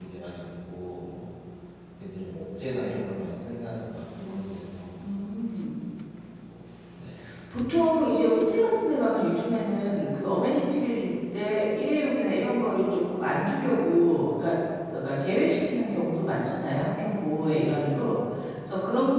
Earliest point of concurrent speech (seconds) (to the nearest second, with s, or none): none